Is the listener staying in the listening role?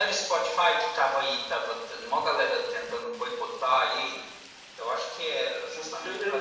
No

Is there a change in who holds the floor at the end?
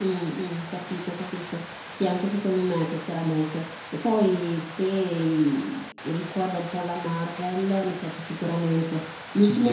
Yes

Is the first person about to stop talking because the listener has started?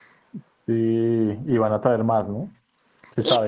Yes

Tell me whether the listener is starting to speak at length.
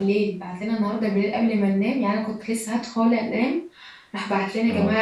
No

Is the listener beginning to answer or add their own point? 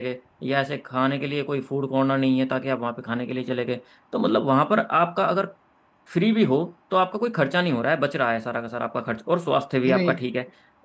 No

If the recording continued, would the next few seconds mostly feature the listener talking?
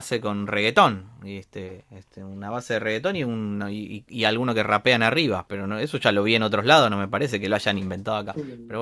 Yes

